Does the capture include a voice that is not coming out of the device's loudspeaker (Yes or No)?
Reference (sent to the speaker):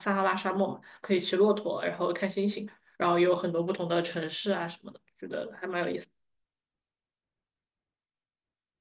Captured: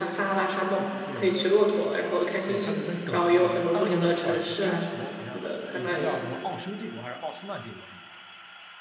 Yes